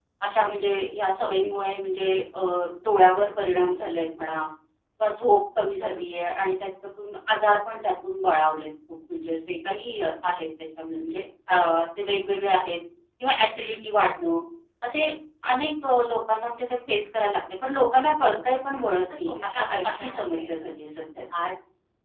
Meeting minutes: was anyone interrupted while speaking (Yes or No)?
Yes